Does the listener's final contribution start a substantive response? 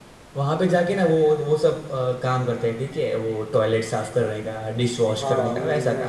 Yes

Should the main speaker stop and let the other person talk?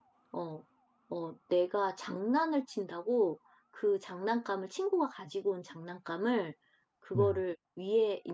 No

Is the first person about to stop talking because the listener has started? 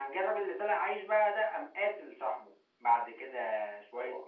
No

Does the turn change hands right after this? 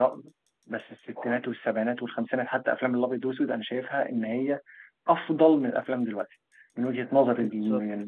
Yes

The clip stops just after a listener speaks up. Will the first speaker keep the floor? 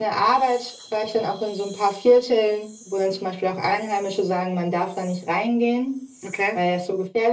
Yes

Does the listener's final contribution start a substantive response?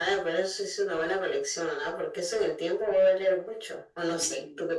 Yes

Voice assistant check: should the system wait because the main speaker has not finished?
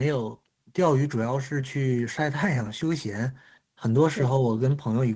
Yes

